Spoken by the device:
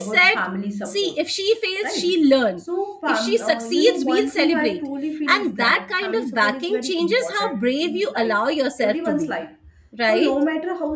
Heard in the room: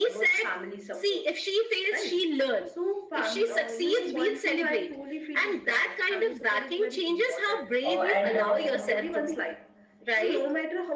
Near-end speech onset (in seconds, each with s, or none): 7.9 s